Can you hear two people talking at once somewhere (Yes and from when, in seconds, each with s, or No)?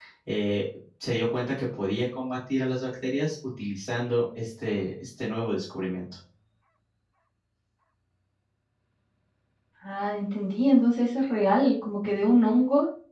No